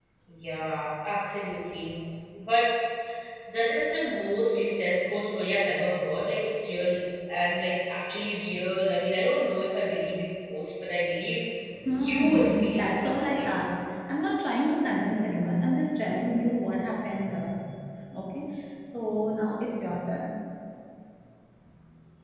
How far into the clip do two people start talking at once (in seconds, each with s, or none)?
12.0 s